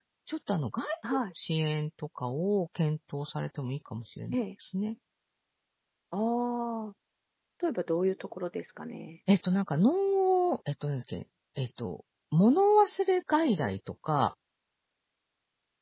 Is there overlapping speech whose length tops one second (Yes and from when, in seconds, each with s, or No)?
No